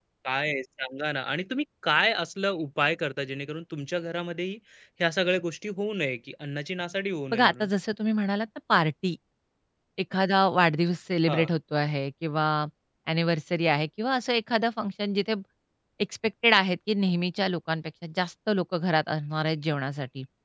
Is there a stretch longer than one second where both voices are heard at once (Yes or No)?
No